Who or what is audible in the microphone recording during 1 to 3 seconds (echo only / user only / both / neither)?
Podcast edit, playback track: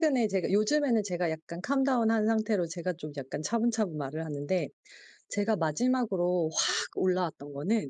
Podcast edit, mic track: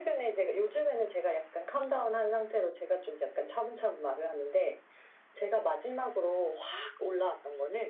echo only